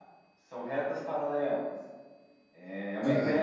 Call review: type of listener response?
listening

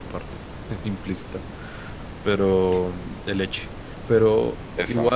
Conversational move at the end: listening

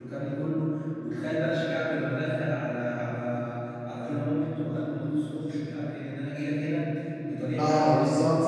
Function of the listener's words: taking over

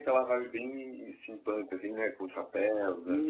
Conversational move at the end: taking over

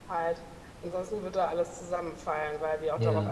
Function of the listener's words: listening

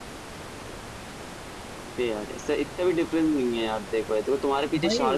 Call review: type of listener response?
listening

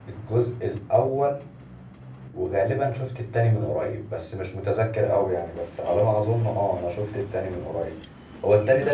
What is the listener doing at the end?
listening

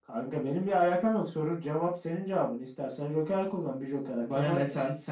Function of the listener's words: taking over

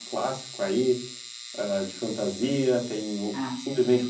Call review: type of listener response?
listening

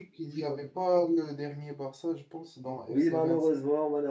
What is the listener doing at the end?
taking over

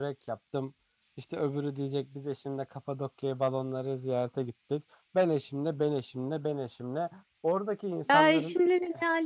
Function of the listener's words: taking over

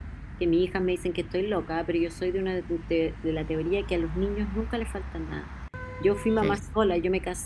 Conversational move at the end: listening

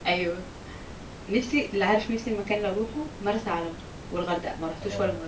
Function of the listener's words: taking over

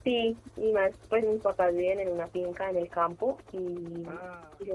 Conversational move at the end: listening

